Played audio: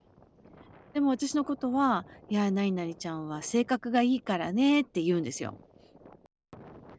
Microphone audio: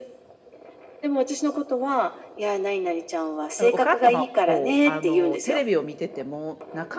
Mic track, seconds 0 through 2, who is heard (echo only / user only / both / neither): echo only